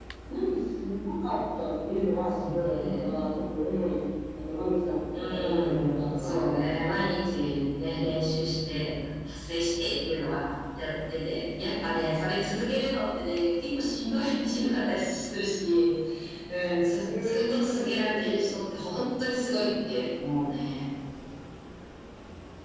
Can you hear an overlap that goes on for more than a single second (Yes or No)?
Yes